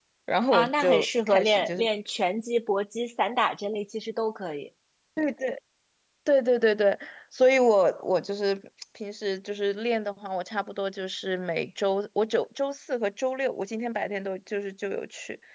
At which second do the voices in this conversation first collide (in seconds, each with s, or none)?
0.5 s